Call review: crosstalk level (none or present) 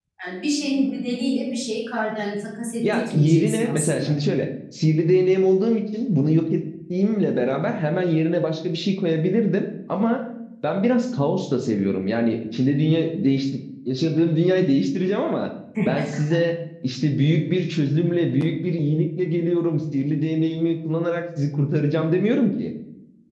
present